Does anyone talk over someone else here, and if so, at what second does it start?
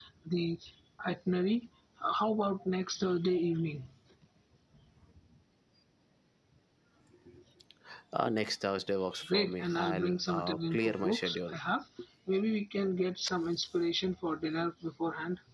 9.3 s

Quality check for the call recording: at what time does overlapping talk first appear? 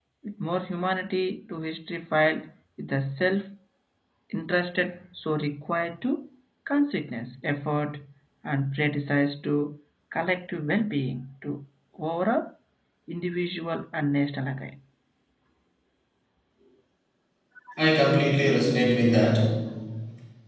none

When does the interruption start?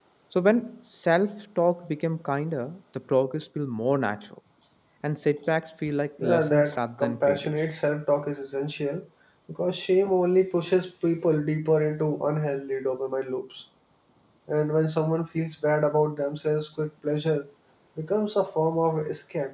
6.2 s

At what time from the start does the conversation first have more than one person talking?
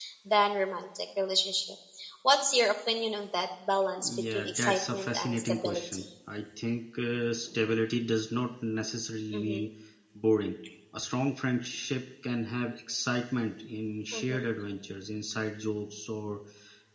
4.0 s

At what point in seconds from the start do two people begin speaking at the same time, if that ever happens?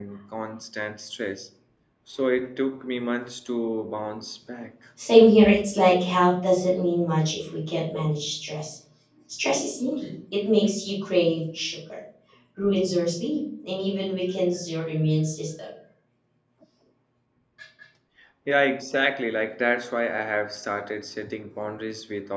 none

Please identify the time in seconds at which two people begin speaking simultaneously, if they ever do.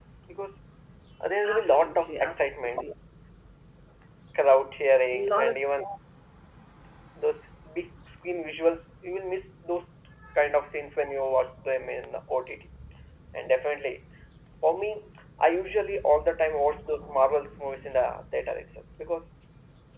1.4 s

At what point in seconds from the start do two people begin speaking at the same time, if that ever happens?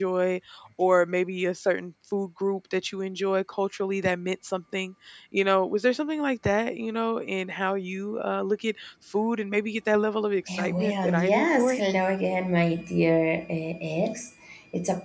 10.5 s

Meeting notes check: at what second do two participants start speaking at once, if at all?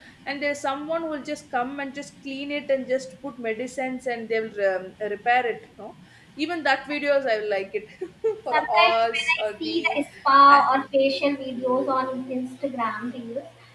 8.5 s

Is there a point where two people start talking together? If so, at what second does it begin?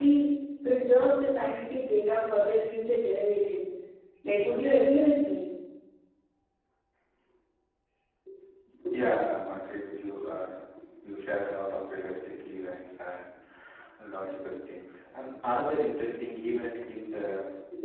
none

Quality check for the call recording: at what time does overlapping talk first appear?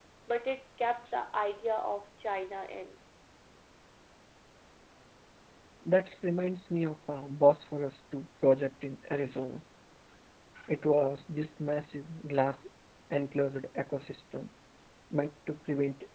none

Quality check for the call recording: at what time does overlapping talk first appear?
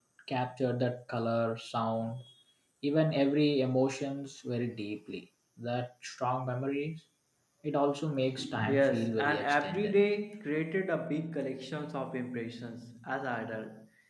8.7 s

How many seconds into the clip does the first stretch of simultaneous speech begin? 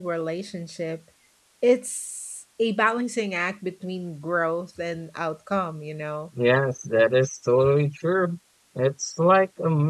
none

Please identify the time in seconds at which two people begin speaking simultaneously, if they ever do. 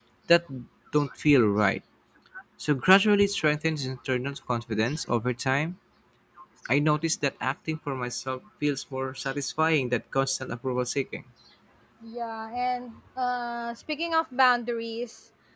none

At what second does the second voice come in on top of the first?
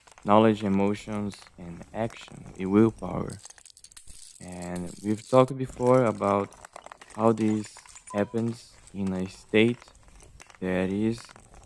none

